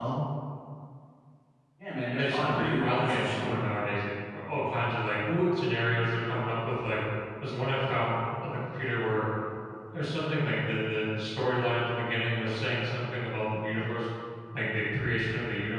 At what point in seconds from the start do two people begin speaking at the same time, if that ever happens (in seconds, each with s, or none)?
2.2 s